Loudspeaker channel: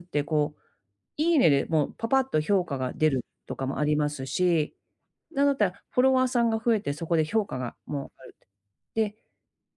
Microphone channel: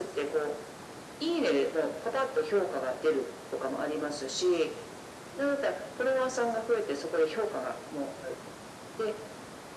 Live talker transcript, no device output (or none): none